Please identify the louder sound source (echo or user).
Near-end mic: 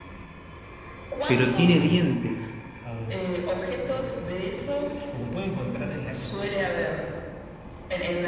user